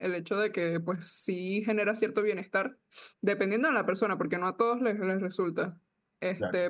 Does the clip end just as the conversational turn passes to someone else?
No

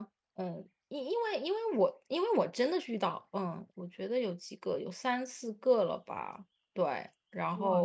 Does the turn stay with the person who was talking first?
No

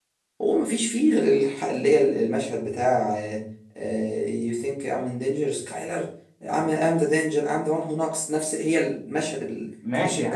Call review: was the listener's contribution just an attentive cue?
No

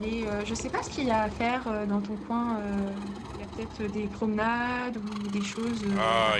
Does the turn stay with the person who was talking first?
No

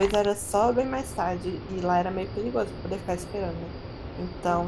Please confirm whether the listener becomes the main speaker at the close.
No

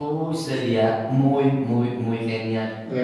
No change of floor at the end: No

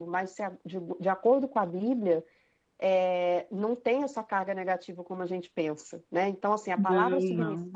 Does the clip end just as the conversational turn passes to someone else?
No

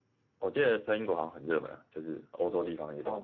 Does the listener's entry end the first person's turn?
Yes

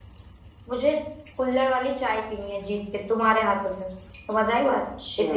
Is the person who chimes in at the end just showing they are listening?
No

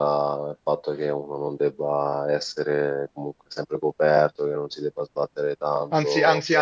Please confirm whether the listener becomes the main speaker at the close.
Yes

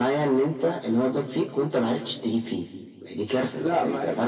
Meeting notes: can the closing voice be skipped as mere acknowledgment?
No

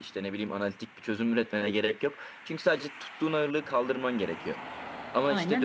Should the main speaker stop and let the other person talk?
No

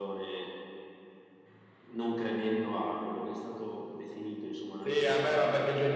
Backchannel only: No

